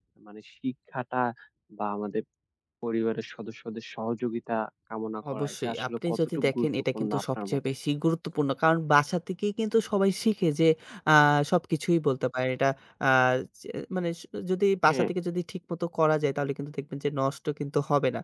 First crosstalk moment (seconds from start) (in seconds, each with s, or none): 5.2 s